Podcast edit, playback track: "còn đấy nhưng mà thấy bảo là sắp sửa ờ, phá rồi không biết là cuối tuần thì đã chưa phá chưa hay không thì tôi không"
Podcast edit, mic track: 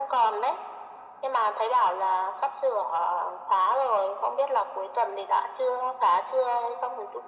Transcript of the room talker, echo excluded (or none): none